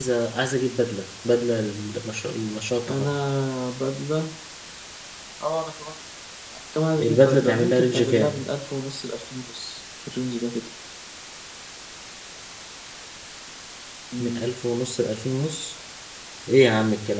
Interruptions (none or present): present